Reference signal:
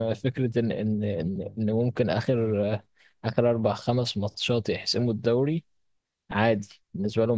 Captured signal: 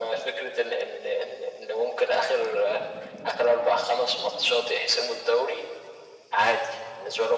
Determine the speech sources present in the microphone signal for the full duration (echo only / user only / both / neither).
echo only